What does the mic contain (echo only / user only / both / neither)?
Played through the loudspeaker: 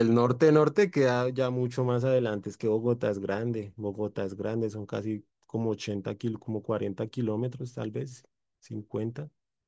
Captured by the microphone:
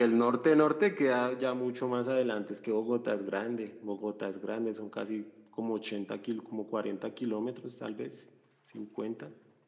echo only